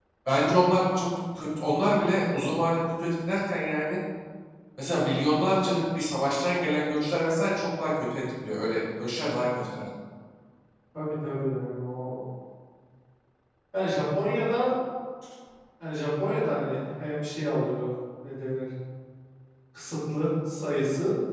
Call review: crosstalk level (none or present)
none